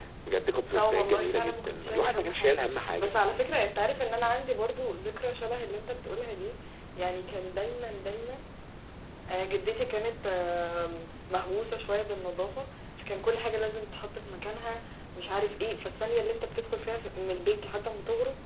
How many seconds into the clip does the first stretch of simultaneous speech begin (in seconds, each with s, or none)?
0.7 s